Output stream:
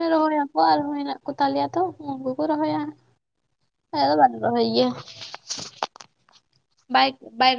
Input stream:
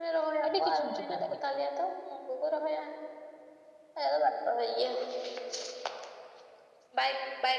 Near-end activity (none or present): present